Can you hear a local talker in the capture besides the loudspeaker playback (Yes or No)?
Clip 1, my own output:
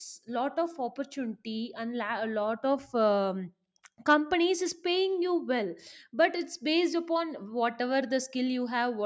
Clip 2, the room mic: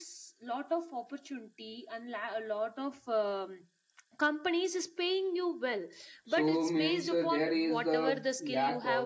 Yes